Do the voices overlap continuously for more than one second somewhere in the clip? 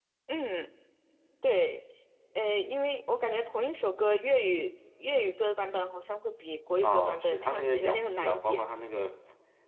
Yes, from 6.8 s

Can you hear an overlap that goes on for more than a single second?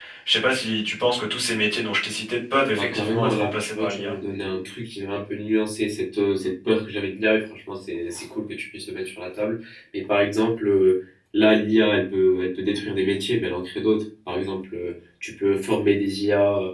Yes, from 2.7 s

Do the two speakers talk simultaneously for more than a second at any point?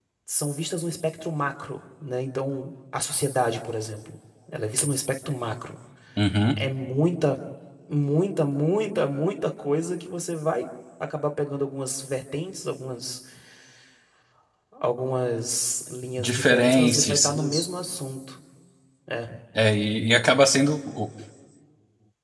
Yes, from 16.2 s

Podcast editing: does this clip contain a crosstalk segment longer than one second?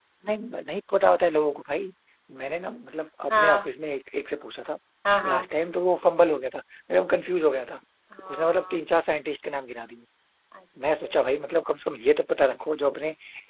No

